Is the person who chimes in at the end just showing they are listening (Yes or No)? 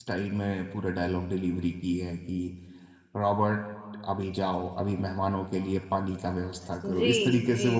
No